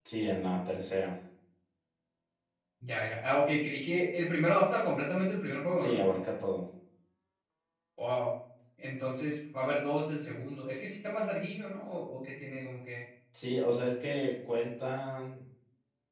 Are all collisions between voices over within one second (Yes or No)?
Yes